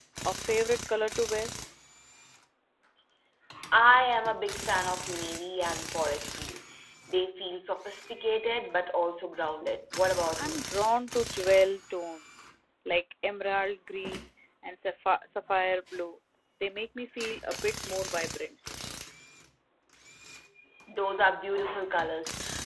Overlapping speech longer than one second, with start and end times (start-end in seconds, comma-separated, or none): none